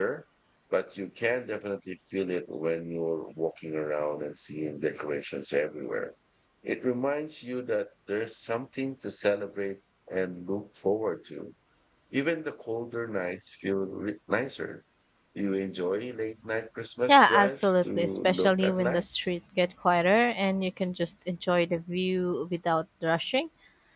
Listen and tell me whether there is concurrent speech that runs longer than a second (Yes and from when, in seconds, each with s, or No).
Yes, from 17.1 s